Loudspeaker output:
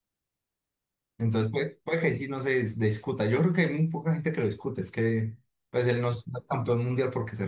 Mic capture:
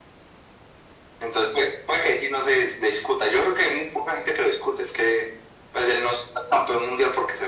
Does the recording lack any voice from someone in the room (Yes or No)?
Yes